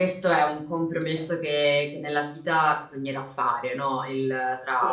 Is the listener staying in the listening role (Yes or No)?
Yes